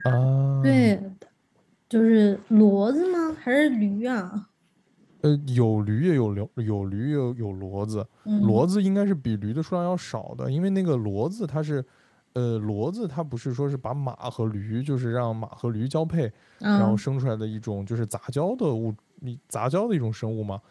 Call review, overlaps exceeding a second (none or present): none